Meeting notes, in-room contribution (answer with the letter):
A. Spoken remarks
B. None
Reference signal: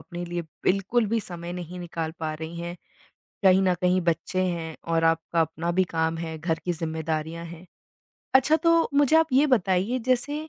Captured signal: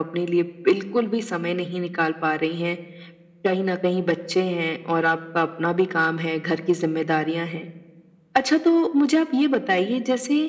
B